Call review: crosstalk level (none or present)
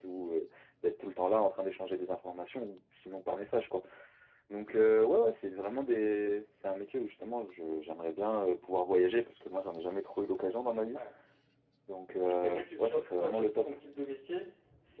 present